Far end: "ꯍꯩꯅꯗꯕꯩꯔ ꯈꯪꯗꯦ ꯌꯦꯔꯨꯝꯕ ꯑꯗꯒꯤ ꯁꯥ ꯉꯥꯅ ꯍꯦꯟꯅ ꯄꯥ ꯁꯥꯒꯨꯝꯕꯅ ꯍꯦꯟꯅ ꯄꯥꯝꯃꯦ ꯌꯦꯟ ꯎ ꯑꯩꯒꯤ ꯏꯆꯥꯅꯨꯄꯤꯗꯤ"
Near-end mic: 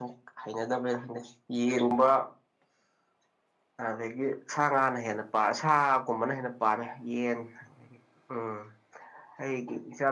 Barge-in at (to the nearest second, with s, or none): none